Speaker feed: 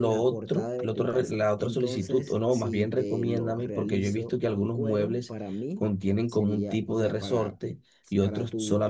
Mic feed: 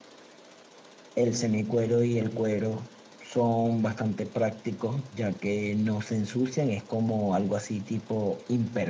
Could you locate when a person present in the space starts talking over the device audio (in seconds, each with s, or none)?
1.1 s